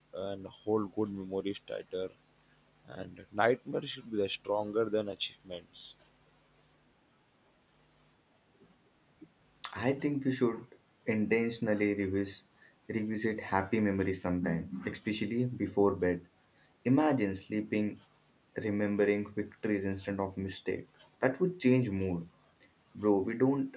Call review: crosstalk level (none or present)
none